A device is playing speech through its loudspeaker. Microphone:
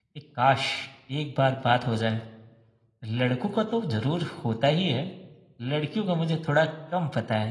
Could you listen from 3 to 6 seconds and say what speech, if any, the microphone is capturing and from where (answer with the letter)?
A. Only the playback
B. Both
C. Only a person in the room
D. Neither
C